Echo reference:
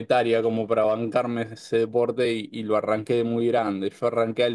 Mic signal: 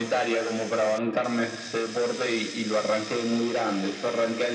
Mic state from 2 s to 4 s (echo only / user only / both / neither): echo only